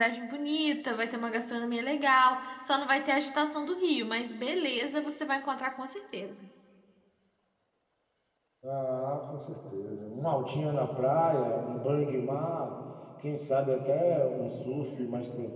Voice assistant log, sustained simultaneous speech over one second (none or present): none